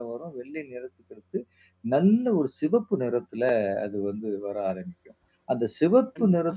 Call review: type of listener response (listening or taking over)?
listening